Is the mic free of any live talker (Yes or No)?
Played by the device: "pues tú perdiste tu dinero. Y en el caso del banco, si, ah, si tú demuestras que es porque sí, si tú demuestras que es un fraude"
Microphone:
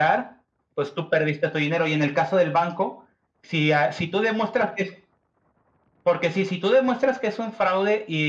Yes